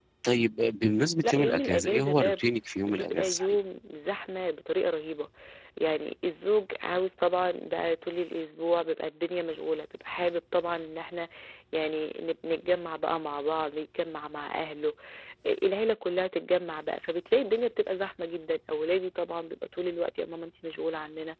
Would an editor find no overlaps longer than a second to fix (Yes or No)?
No